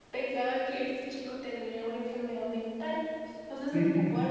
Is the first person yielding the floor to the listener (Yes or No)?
No